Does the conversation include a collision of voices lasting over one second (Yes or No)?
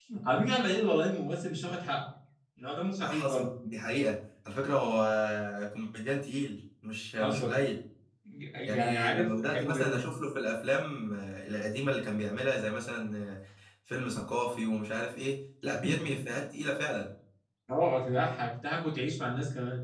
Yes